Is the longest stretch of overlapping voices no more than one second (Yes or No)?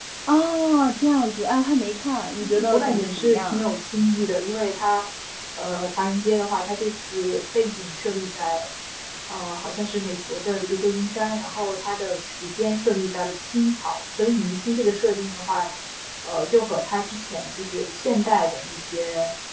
No